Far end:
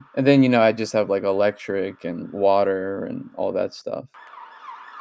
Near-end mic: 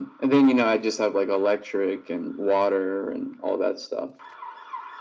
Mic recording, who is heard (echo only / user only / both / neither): echo only